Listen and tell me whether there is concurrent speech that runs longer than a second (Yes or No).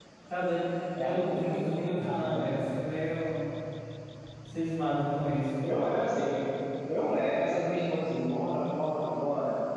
Yes